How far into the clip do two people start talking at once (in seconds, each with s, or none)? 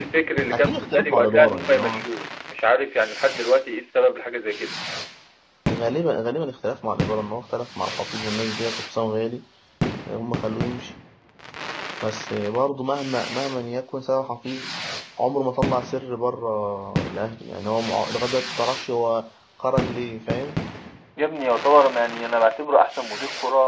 0.5 s